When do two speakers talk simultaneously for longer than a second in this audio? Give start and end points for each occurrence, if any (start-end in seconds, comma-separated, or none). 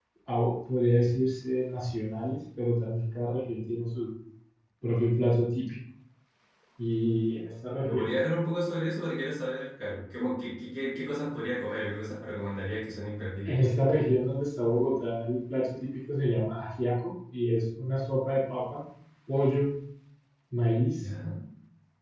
none